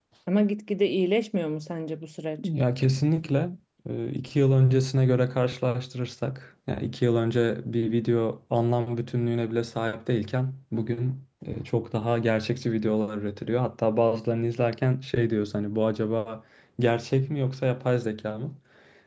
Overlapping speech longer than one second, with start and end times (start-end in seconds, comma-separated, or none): none